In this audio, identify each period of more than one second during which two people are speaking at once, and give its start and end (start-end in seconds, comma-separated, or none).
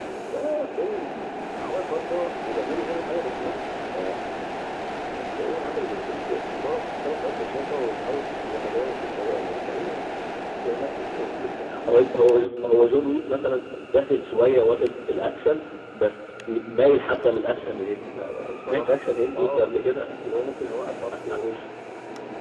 none